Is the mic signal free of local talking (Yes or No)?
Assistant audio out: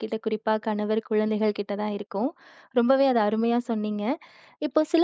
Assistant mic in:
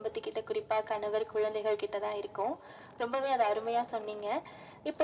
Yes